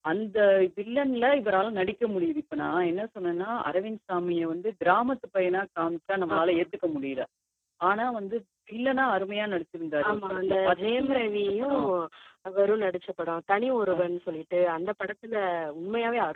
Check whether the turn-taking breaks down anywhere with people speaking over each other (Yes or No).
Yes